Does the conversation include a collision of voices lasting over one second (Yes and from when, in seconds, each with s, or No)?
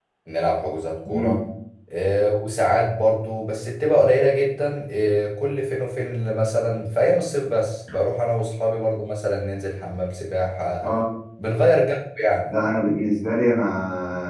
No